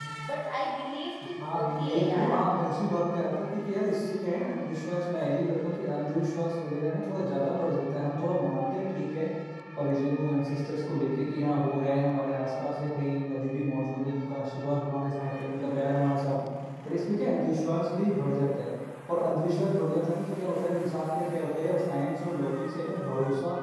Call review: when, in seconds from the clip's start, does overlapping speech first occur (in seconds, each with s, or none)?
1.4 s